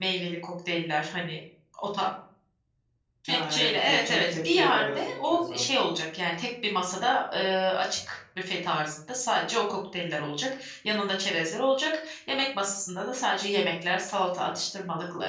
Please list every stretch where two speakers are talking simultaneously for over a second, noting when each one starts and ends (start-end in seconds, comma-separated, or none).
3.3-5.6